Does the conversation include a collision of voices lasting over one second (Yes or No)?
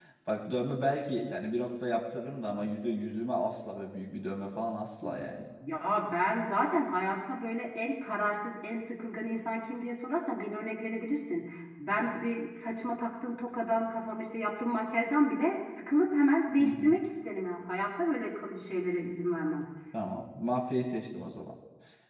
No